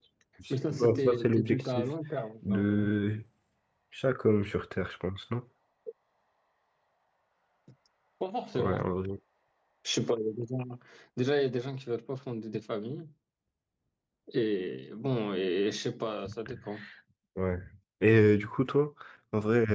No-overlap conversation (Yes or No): No